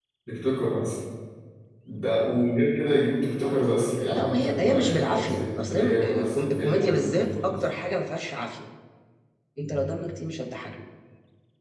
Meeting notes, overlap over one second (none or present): present